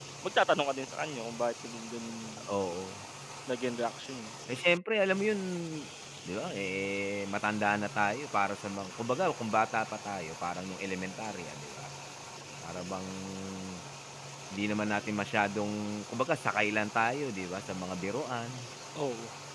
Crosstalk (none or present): none